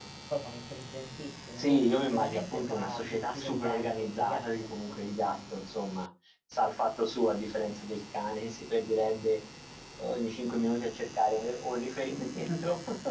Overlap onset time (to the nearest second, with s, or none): 2 s